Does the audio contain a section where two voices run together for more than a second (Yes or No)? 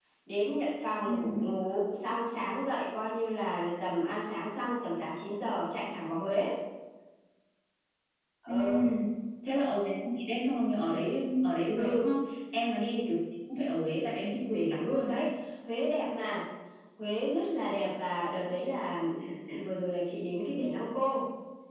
No